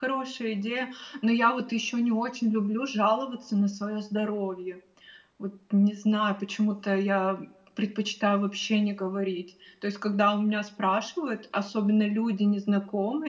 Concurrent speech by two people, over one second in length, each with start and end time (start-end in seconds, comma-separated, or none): none